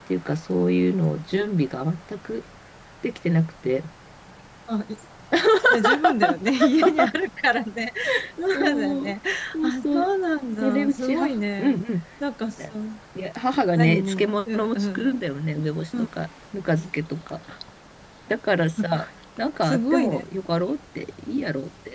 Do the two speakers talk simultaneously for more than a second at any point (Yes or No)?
Yes